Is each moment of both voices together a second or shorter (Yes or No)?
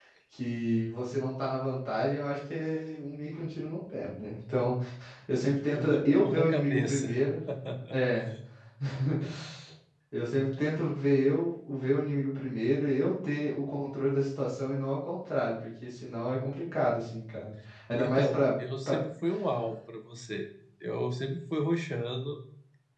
No